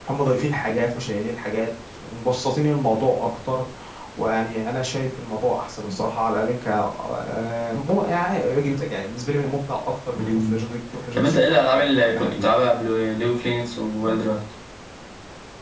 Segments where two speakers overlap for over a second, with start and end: 11.2-12.6

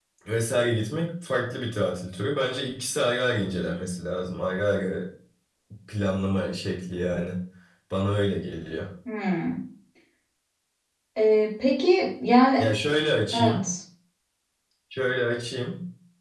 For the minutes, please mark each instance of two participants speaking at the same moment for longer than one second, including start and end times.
none

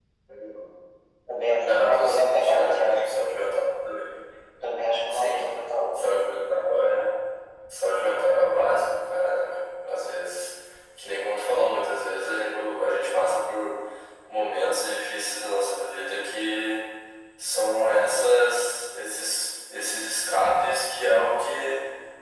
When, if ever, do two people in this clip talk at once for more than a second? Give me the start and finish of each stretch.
1.6-3.0

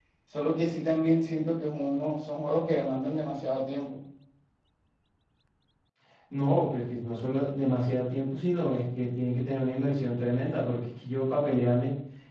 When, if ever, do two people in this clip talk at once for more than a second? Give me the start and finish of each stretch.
none

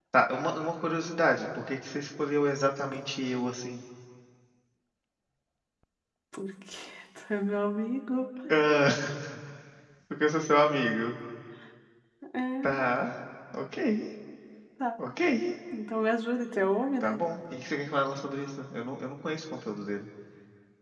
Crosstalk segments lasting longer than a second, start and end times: none

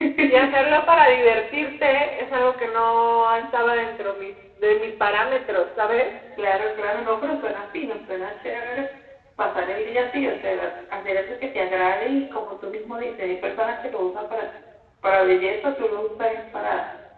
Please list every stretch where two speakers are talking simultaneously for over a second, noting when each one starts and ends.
none

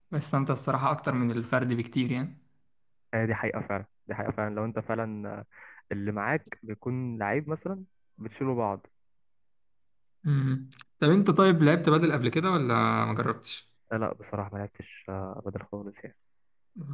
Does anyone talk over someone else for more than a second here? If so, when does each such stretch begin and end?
none

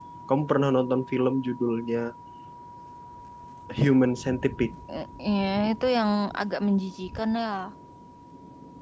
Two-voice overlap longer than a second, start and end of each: none

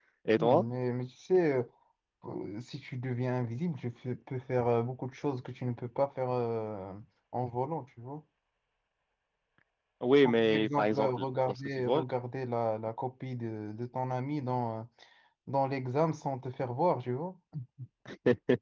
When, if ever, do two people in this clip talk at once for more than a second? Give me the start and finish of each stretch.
10.2-12.0

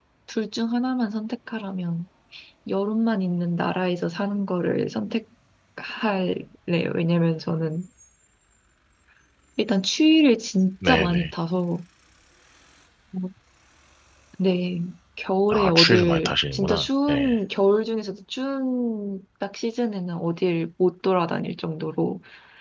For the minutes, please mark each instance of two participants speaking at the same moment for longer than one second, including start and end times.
15.5-17.3

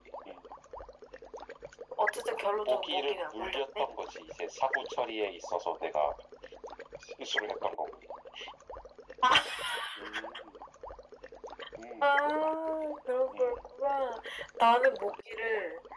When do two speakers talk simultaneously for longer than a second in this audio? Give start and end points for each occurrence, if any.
2.5-3.8

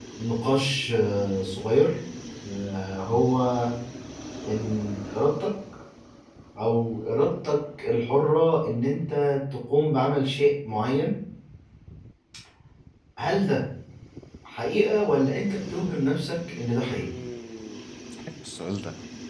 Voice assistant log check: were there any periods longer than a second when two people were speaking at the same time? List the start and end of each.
none

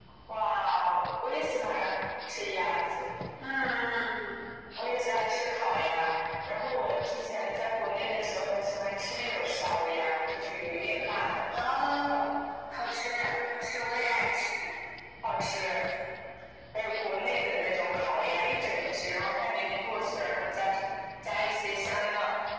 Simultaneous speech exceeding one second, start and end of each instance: none

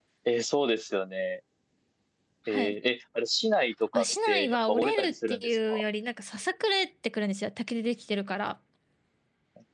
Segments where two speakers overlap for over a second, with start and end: 3.9-5.8

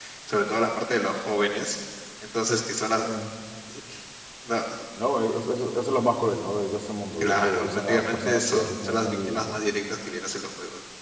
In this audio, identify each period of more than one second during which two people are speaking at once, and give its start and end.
7.2-9.6

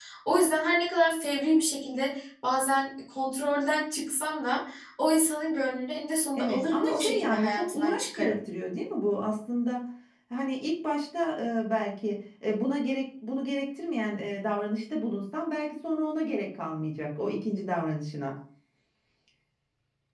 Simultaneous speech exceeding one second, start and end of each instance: 6.4-8.4

